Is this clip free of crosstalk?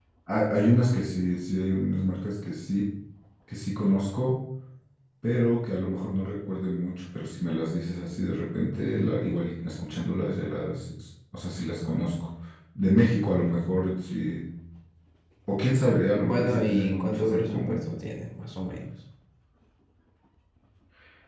No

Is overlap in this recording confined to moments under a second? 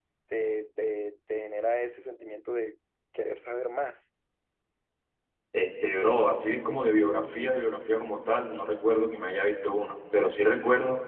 Yes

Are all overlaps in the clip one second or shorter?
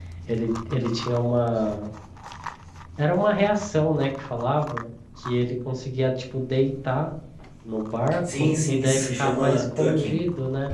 No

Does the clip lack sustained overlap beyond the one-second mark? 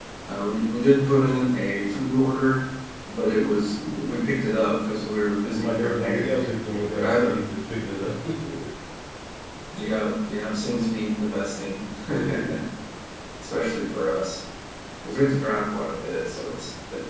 No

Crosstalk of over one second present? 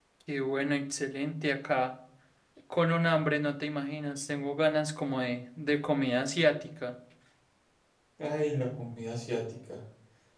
No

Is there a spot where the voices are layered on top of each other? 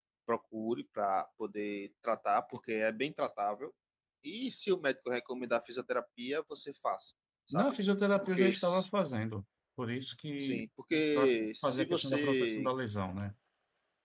Yes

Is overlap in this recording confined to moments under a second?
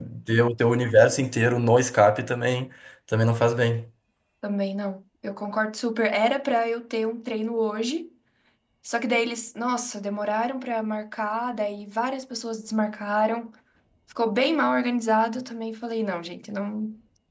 Yes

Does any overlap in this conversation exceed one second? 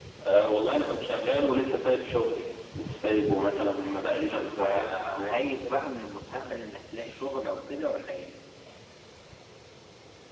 Yes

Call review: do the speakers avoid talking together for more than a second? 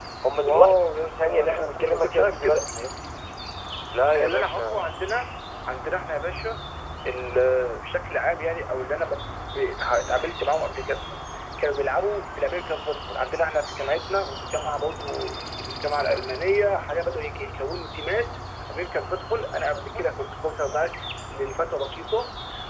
No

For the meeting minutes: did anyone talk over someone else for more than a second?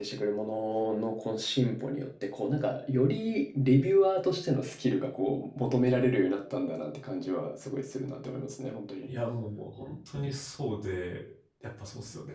No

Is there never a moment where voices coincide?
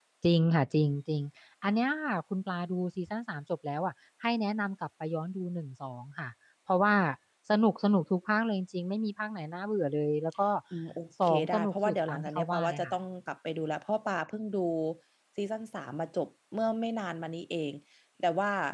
No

